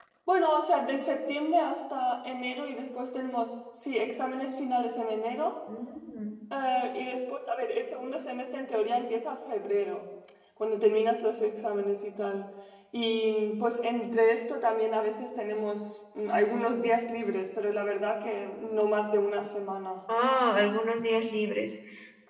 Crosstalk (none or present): none